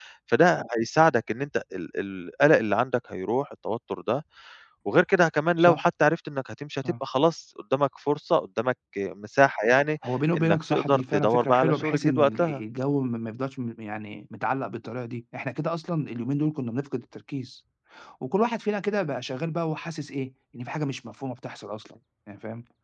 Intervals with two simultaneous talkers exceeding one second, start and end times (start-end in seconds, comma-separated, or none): 10.4-12.6